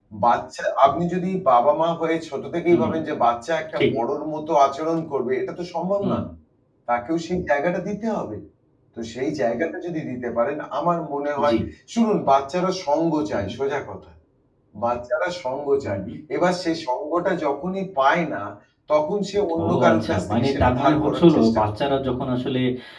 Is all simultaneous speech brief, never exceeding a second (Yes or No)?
No